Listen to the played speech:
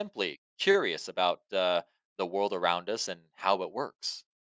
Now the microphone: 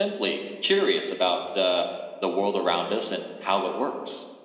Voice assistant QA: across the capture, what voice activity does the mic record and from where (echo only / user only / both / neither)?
echo only